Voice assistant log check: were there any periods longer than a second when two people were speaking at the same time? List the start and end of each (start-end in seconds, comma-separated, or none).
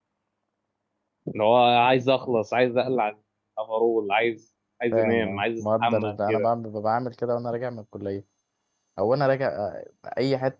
4.9-6.5